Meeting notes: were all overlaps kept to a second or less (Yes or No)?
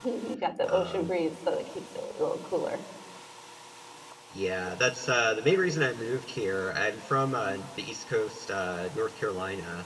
Yes